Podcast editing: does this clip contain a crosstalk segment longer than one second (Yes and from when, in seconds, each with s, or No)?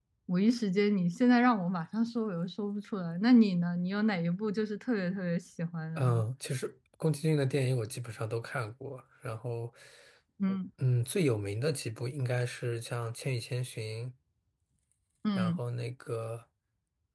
No